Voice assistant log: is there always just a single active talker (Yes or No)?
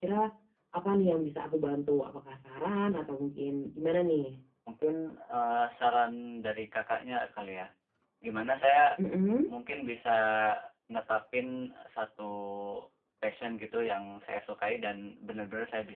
Yes